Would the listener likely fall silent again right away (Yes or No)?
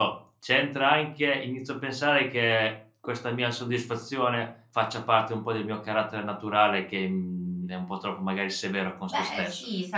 No